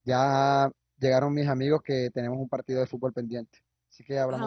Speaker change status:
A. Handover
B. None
A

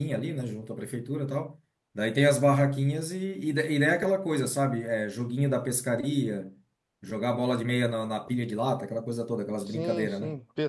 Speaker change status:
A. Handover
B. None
A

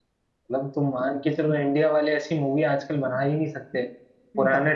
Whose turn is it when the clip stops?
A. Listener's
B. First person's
B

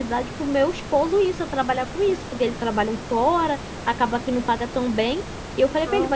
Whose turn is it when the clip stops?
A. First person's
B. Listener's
A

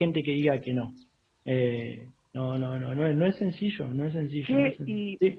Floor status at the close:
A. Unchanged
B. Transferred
B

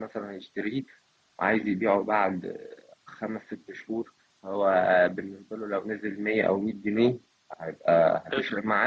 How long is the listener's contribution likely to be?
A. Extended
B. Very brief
B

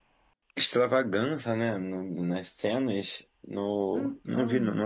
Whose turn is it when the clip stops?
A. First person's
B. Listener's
A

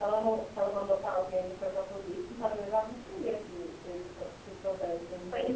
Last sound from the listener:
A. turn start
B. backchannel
A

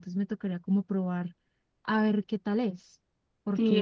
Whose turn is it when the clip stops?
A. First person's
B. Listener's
B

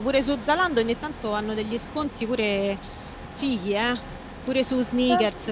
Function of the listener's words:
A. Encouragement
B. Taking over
B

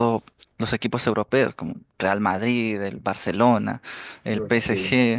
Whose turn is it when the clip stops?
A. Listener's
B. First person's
B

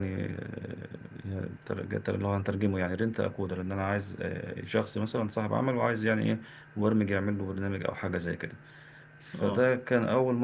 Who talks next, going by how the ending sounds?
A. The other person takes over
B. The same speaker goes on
B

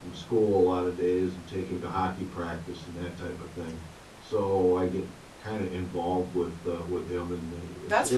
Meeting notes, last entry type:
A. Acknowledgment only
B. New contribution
B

